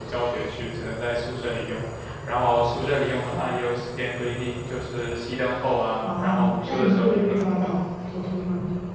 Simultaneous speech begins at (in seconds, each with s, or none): 6.0 s